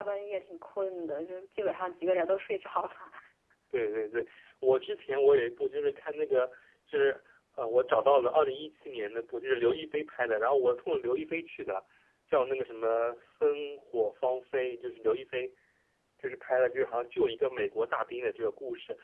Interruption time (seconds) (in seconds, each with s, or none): none